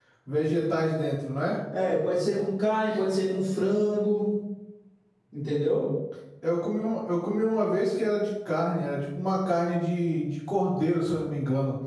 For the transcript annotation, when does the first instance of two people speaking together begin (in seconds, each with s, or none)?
none